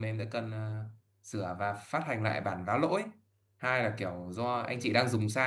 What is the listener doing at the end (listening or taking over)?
listening